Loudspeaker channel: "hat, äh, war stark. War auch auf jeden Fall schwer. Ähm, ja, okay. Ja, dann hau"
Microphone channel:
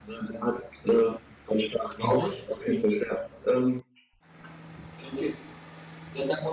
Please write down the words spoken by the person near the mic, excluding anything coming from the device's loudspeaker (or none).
Auch nicht.